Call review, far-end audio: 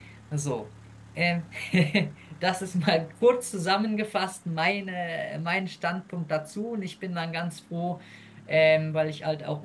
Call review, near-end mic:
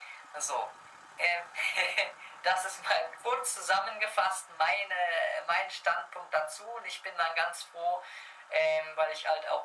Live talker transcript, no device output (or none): none